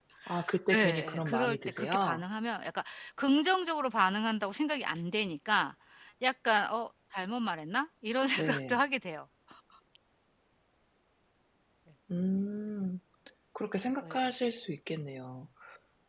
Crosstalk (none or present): present